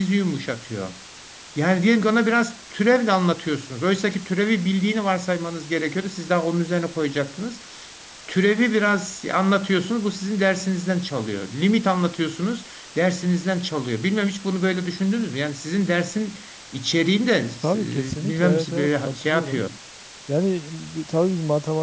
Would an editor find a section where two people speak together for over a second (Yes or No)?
Yes